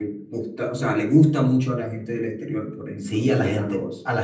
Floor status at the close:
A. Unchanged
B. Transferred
B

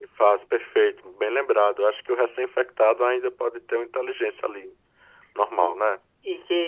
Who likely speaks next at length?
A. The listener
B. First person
A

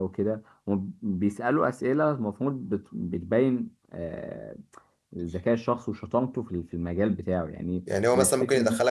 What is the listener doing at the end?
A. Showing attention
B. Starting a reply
B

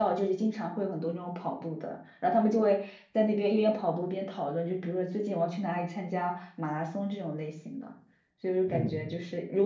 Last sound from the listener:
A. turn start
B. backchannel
B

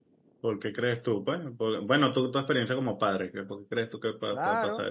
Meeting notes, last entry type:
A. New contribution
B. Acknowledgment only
A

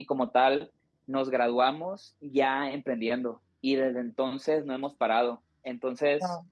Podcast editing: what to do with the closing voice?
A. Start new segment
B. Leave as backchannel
B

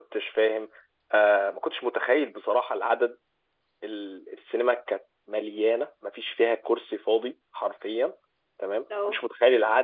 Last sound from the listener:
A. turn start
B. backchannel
B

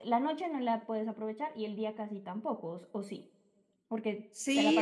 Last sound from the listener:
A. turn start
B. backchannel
A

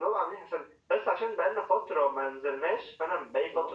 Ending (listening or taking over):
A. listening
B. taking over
A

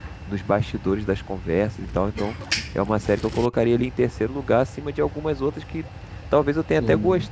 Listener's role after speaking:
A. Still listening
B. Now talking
A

